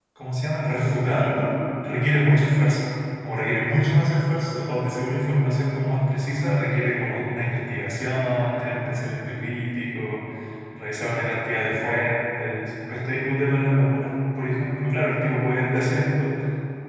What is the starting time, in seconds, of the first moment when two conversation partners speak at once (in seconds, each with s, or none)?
none